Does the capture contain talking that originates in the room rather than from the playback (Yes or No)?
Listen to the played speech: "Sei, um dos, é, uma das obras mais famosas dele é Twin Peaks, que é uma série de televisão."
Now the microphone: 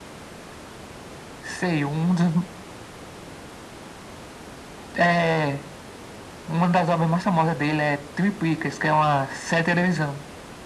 No